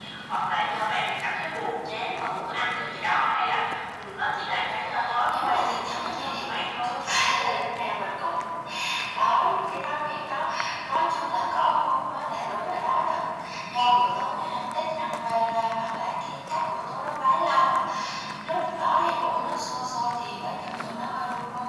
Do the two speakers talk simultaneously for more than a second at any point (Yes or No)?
Yes